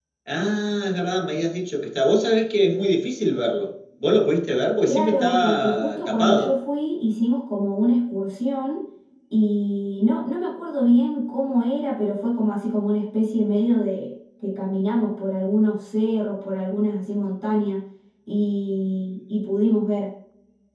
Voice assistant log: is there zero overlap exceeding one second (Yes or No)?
No